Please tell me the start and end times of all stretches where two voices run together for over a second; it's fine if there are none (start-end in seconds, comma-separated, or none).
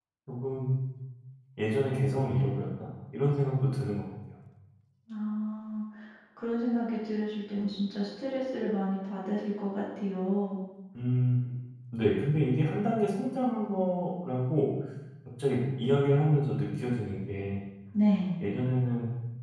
none